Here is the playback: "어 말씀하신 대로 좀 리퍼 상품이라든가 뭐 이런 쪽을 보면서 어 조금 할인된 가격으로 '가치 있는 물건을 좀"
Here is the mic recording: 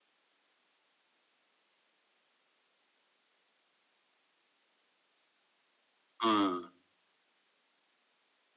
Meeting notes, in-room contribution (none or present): present